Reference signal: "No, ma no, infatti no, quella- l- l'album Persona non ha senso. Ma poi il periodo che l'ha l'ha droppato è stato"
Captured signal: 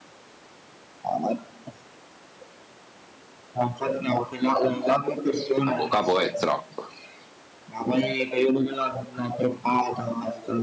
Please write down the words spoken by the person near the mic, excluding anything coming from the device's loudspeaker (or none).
Ah, boh, capo è trap.